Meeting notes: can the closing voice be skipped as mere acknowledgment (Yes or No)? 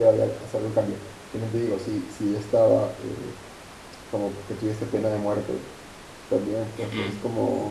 Yes